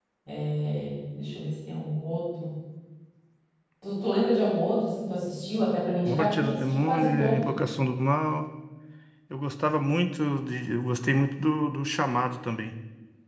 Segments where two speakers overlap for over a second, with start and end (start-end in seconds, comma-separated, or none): 6.0-7.5